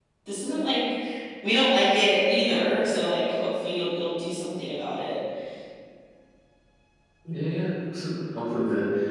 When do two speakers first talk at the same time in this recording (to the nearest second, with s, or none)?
none